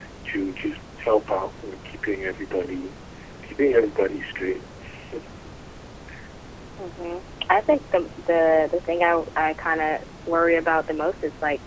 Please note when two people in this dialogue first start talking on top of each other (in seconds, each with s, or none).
none